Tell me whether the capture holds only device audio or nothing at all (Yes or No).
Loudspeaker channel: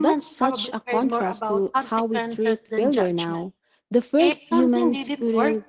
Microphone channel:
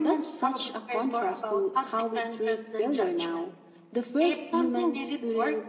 Yes